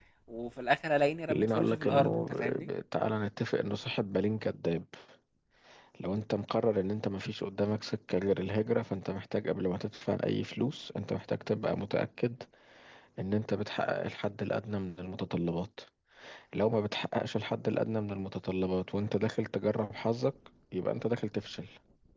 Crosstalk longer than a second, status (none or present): present